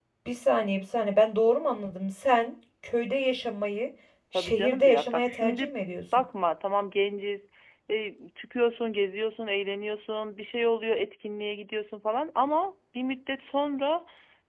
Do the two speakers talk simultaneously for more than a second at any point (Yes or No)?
Yes